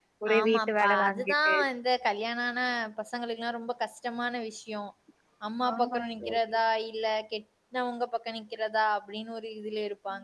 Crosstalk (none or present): present